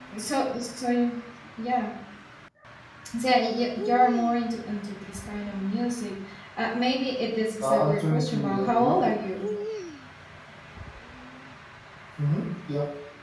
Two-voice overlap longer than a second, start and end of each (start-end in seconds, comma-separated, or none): 7.6-9.0